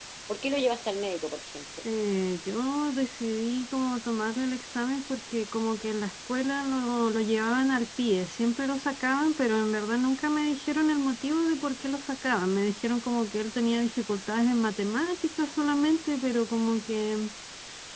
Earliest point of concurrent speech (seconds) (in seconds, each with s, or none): none